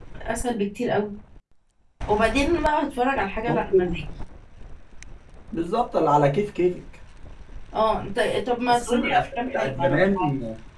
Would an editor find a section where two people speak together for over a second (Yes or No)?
Yes